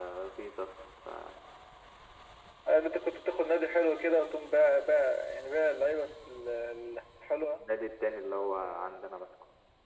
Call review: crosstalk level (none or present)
none